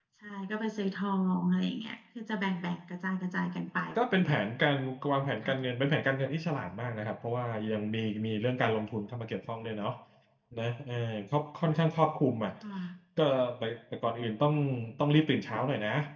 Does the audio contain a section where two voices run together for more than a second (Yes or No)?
No